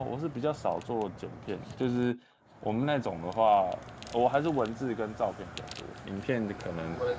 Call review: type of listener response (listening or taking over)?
taking over